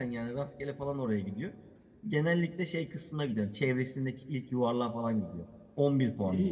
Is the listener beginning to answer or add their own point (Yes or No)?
Yes